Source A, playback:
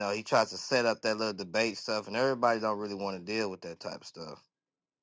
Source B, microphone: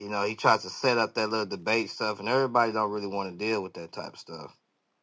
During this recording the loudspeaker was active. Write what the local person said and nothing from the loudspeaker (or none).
none